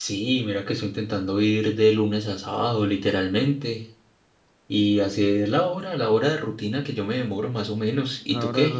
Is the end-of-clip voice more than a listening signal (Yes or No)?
Yes